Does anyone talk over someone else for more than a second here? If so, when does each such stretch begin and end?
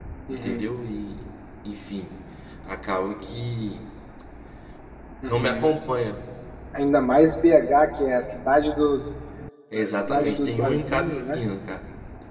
9.8-11.4

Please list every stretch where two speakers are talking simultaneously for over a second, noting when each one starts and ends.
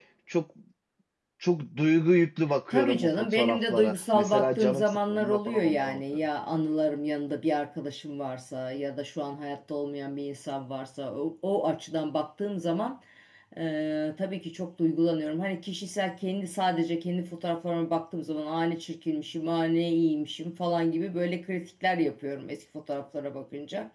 2.7-6.0

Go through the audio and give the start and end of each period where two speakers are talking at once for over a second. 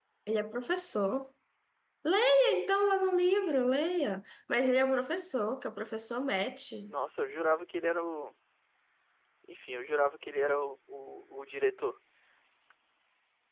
none

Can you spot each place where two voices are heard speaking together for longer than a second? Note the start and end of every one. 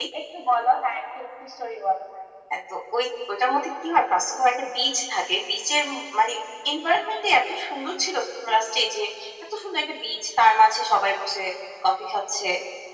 none

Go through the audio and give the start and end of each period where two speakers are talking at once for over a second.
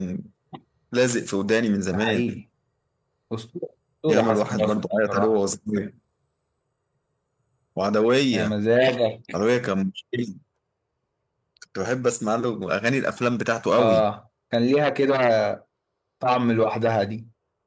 4.1-5.4

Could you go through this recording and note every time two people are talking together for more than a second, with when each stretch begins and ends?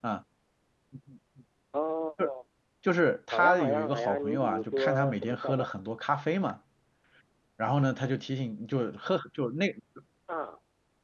3.3-5.7

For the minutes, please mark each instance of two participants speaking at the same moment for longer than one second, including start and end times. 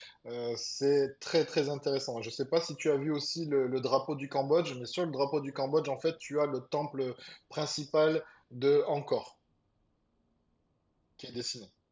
none

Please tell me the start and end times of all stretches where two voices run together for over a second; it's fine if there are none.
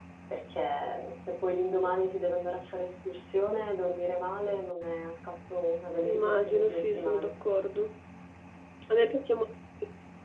6.0-7.3

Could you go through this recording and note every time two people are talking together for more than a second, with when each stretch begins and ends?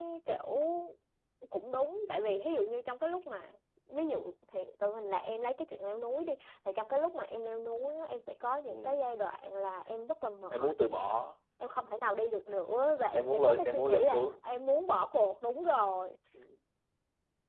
13.1-14.4

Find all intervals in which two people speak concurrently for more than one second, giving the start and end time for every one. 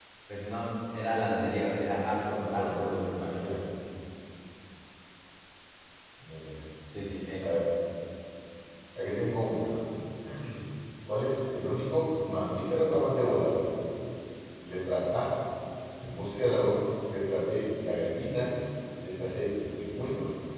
2.3-3.5

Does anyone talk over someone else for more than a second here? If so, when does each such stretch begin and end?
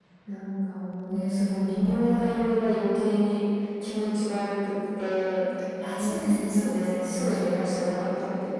1.1-2.7, 6.0-7.9

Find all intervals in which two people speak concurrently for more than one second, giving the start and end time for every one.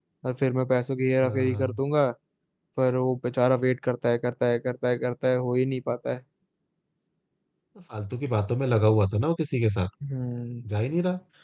none

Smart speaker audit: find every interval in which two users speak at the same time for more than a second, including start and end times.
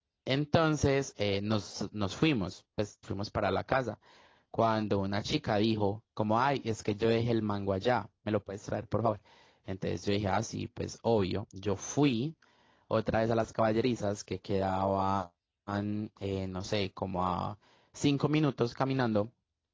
none

